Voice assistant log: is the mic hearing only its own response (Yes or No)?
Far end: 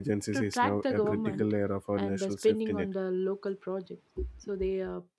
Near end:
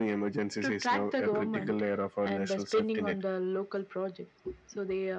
Yes